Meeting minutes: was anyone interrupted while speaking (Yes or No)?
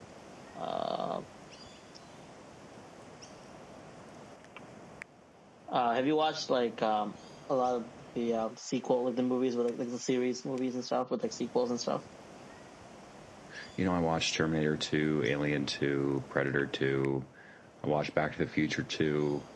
No